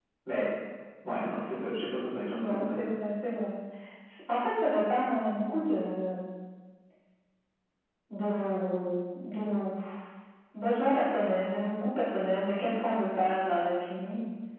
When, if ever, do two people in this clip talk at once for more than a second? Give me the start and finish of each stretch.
none

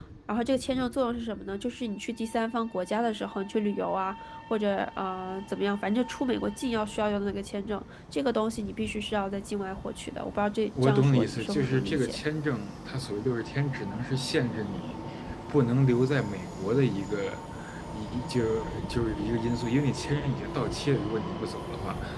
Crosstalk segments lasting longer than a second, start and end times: 10.8-12.2

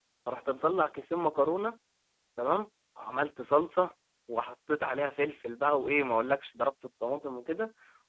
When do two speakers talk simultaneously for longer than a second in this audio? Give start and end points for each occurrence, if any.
none

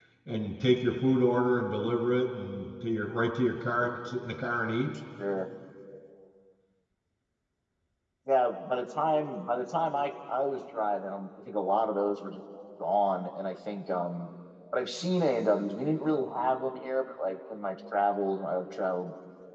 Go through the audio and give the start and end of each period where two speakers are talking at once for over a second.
none

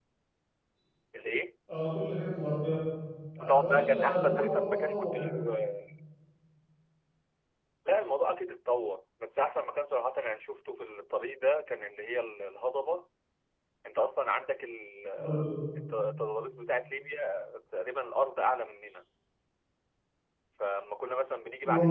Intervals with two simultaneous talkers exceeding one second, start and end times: 3.4-5.2

